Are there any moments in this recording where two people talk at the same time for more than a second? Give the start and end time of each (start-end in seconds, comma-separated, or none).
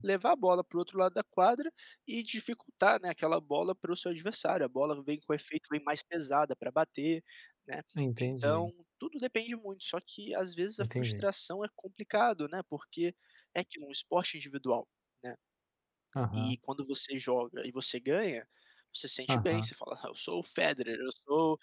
none